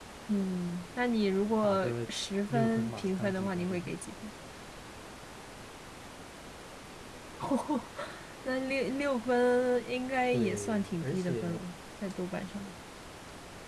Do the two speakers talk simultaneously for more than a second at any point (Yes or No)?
Yes